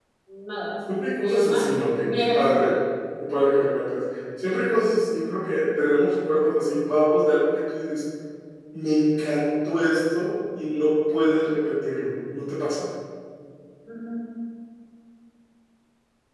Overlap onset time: 1.2 s

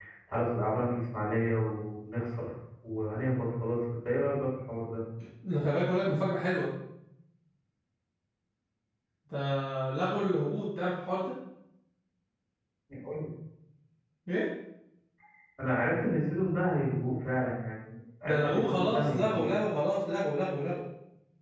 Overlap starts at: 18.2 s

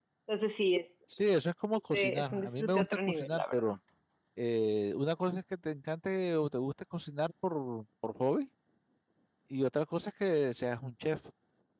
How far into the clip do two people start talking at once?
1.9 s

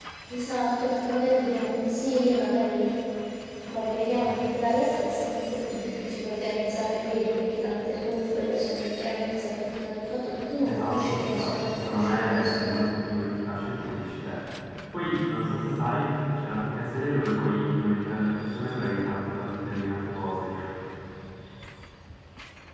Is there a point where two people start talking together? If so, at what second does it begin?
10.7 s

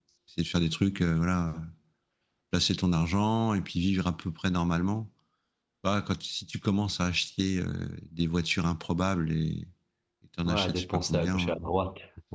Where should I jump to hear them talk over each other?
10.5 s

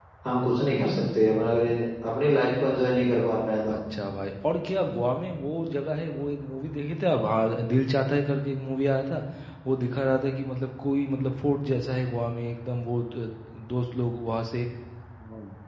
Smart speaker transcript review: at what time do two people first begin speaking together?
none

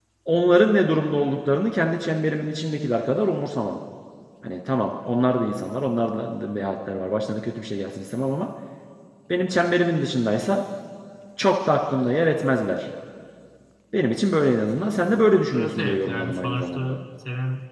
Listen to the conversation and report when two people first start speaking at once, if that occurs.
15.5 s

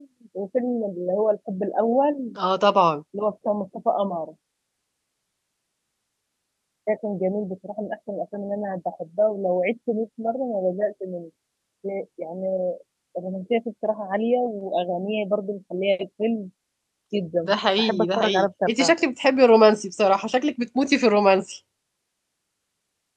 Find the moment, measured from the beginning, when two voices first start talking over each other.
17.4 s

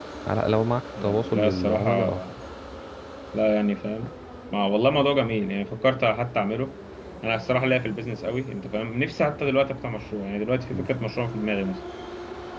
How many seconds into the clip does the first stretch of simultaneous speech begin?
1.0 s

